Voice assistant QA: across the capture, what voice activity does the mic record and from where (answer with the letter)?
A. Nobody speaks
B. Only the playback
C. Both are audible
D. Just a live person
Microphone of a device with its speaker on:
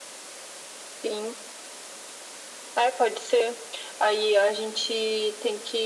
B